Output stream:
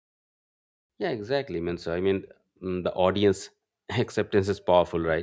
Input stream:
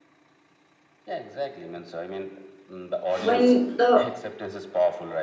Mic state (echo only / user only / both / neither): both